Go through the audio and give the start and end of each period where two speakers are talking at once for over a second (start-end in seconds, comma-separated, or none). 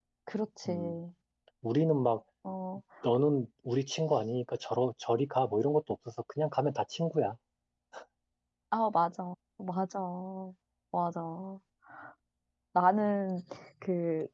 none